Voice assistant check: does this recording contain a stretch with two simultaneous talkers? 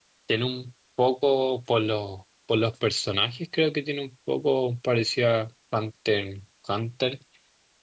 No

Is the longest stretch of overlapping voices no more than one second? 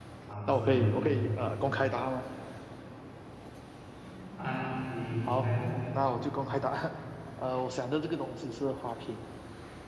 Yes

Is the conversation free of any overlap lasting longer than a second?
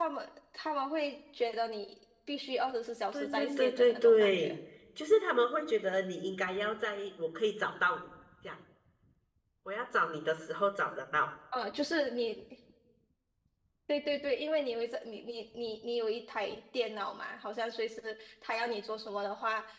No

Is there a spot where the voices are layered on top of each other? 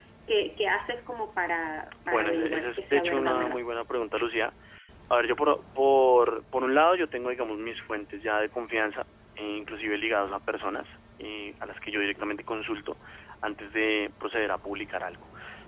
Yes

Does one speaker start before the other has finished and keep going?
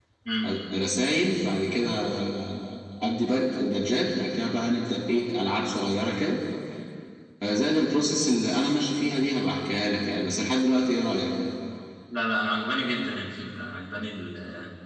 No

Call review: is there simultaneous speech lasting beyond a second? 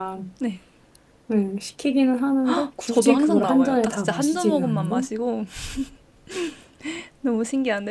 Yes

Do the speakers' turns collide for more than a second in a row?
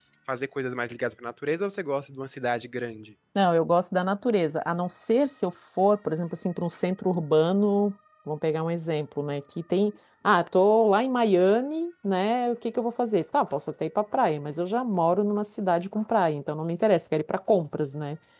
No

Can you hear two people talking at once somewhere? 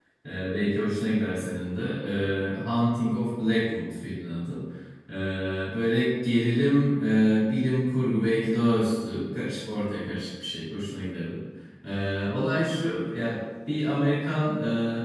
No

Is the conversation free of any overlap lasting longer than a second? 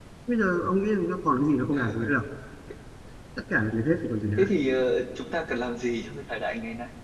Yes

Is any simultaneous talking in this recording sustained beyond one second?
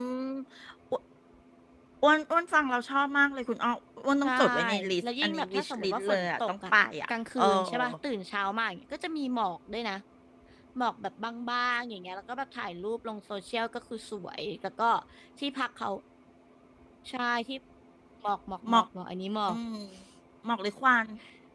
Yes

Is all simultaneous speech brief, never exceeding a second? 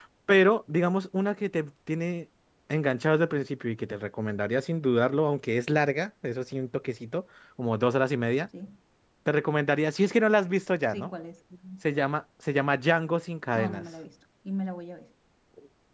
Yes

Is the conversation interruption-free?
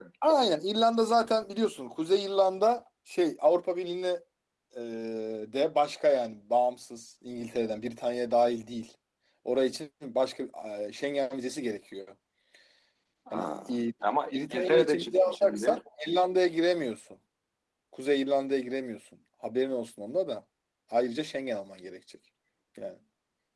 No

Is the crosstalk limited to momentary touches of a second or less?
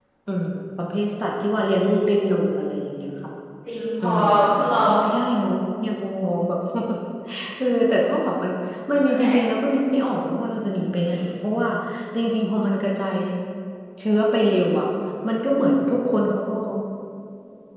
Yes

